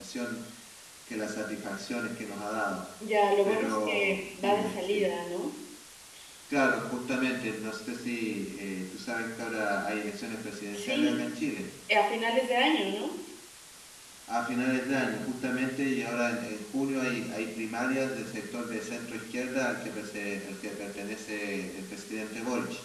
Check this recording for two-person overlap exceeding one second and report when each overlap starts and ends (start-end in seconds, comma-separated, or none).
3.4-5.1